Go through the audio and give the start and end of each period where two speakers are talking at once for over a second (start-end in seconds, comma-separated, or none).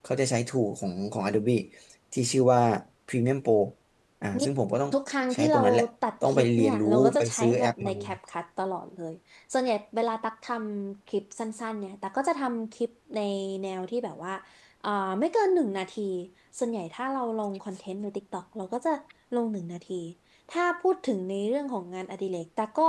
6.2-7.9